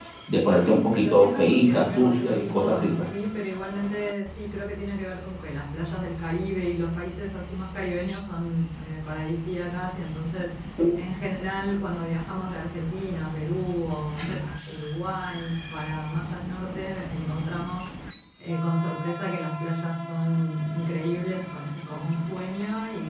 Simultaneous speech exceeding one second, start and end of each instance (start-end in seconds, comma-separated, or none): 0.6-3.1